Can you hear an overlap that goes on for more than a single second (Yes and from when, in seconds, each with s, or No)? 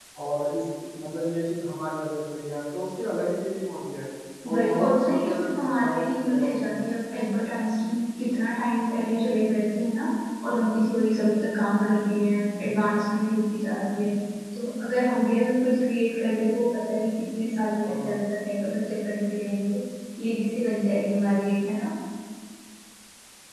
Yes, from 4.5 s